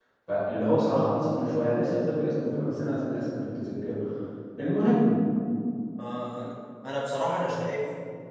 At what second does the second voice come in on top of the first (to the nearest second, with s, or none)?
none